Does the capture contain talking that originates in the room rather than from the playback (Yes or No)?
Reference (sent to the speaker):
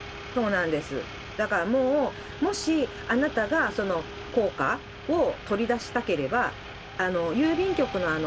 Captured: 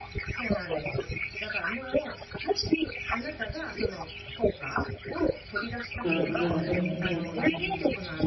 Yes